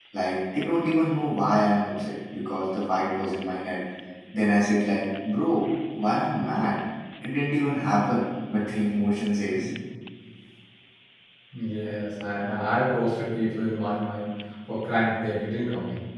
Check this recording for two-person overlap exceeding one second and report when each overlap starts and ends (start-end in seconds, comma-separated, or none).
none